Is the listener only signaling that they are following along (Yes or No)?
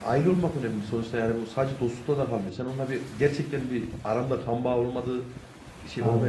Yes